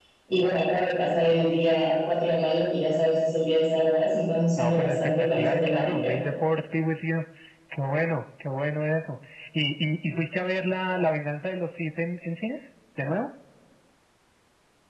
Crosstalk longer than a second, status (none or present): present